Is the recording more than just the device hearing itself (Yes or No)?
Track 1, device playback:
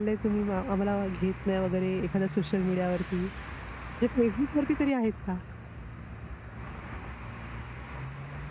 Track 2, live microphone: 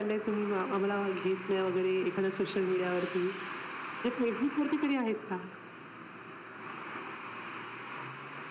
No